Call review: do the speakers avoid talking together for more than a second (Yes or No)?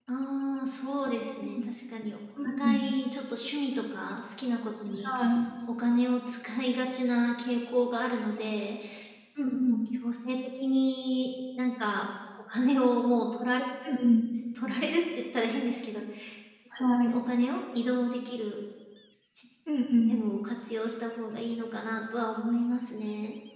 Yes